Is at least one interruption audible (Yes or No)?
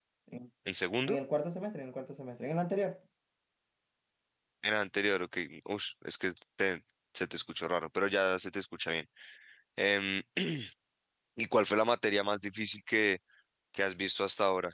No